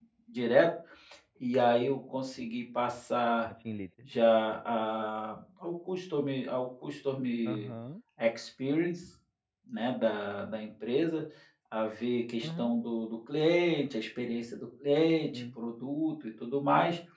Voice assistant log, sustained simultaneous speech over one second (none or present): none